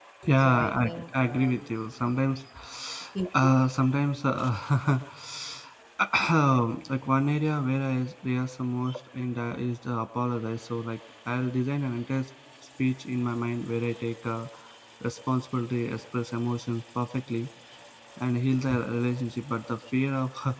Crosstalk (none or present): present